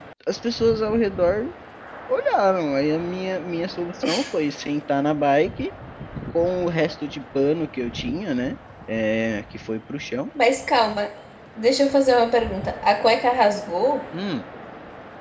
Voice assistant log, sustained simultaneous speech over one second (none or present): none